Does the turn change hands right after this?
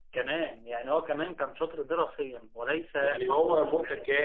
Yes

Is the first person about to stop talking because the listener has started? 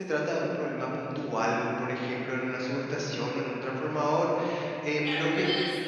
Yes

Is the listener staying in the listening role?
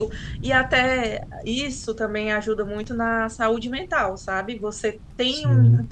Yes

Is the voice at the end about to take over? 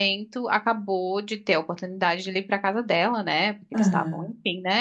No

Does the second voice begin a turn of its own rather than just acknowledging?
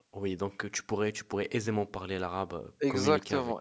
Yes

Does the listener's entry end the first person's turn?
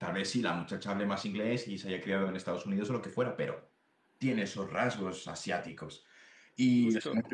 No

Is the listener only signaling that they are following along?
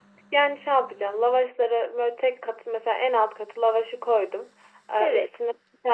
Yes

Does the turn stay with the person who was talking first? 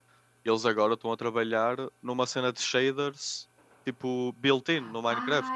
No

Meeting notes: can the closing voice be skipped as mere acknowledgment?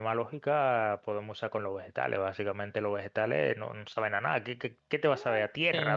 No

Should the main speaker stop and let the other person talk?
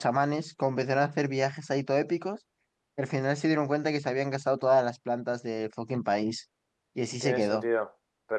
Yes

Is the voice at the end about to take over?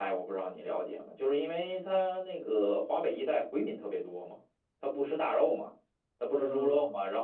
No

